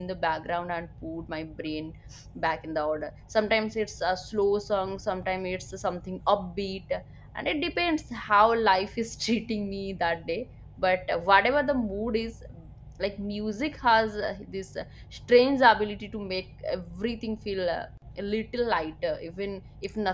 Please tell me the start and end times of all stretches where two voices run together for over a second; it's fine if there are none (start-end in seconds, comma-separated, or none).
none